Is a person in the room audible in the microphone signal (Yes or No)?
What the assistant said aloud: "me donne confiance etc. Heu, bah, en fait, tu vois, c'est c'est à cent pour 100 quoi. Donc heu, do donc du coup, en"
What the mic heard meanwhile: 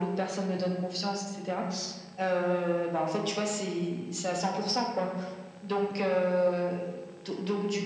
No